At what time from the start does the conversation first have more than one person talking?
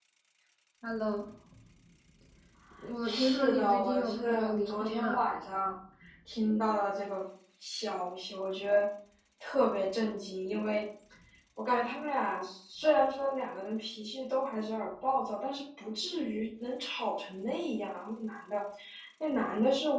3.0 s

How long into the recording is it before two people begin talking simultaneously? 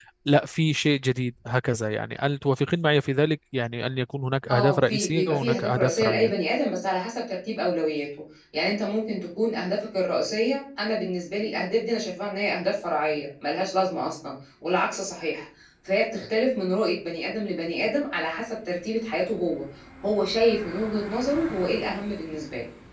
4.5 s

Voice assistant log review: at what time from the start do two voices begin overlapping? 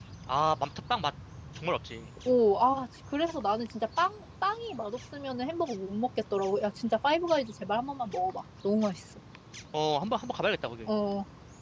none

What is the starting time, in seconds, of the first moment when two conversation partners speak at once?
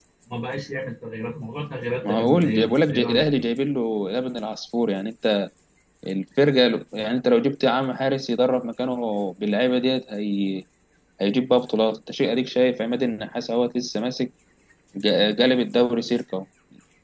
2.0 s

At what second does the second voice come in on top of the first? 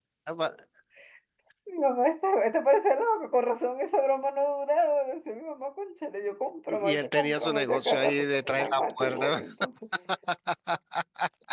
6.7 s

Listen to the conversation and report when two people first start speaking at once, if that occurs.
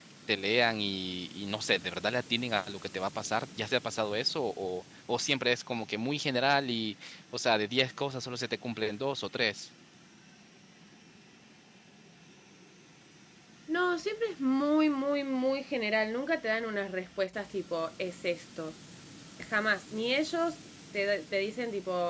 none

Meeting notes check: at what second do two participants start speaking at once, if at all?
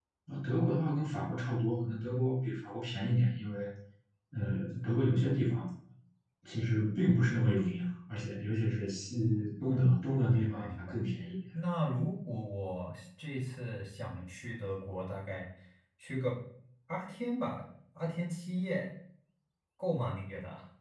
9.7 s

